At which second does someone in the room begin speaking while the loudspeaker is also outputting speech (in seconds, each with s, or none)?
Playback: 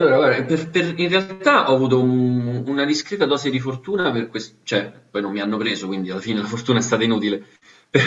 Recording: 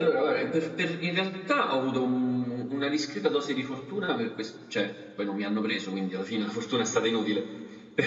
none